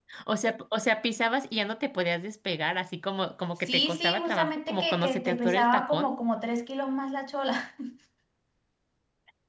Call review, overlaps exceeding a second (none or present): present